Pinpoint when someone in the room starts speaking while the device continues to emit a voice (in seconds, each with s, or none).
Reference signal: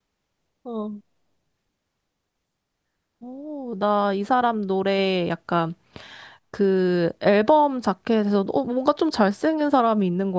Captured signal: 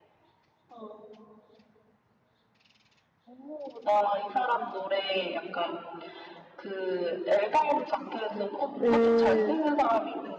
8.8 s